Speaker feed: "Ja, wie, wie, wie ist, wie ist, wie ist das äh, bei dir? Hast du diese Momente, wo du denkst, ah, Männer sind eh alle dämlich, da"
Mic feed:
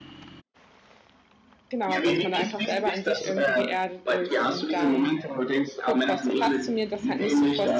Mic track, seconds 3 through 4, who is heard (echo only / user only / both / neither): both